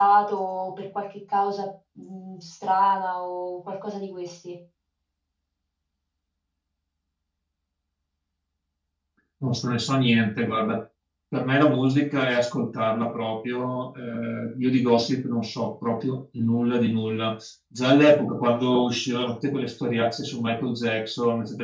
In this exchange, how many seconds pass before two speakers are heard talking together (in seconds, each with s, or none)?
none